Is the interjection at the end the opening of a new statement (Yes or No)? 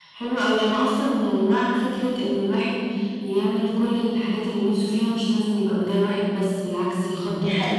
No